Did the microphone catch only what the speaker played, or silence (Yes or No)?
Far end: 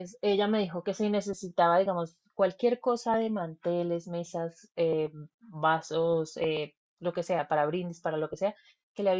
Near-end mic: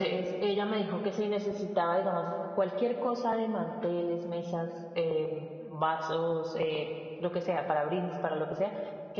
Yes